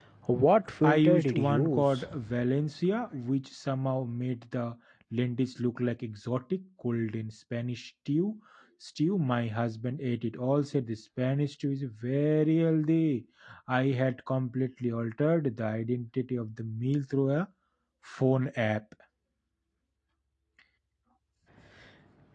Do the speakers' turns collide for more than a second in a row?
Yes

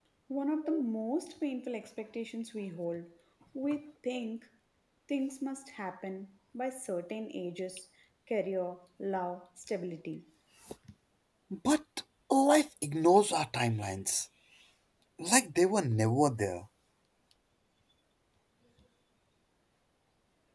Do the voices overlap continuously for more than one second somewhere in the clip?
No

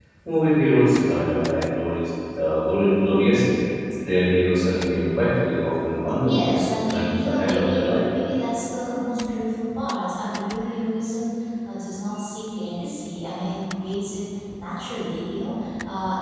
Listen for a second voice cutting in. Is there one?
Yes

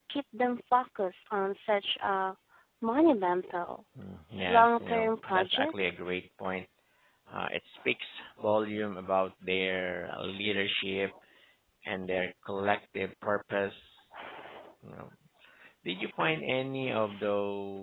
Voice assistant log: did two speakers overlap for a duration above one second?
Yes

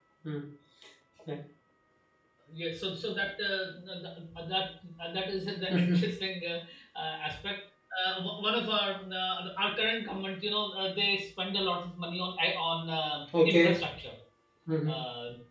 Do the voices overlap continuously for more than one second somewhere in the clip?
No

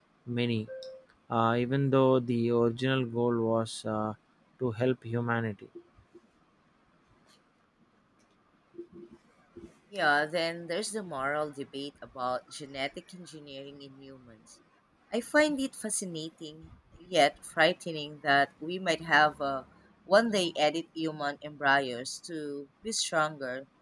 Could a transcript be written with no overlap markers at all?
Yes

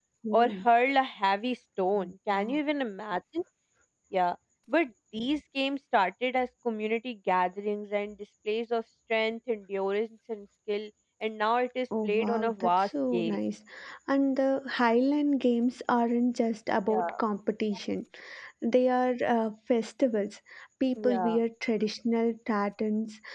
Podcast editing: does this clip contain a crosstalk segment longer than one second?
Yes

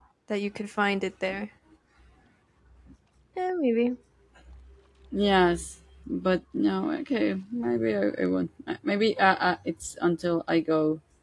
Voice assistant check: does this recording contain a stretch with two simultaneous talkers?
No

